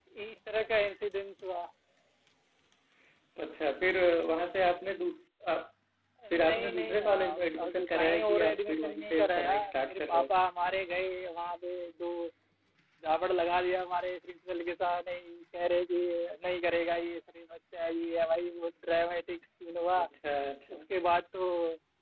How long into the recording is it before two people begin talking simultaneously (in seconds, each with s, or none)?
6.3 s